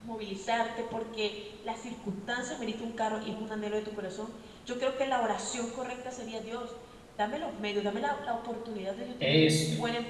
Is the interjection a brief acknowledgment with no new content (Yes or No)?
Yes